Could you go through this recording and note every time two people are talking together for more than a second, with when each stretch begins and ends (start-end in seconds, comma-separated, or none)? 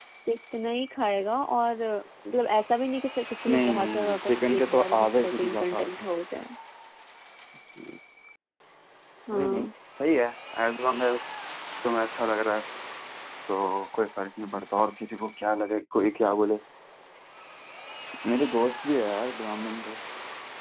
3.5-6.1